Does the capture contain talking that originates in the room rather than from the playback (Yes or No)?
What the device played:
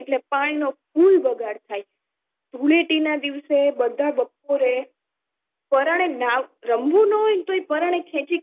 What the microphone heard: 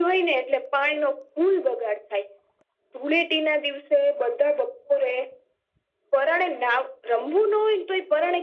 No